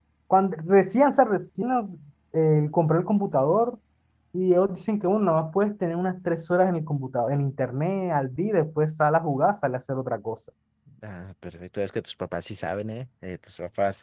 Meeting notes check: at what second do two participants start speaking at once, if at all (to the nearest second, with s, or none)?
none